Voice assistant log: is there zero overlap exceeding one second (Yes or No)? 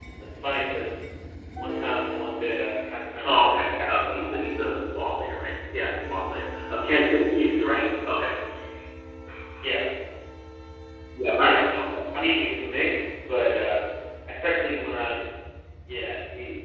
No